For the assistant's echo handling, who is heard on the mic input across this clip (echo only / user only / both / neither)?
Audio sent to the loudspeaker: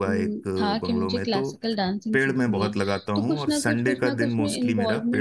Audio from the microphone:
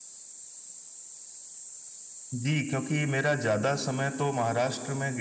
user only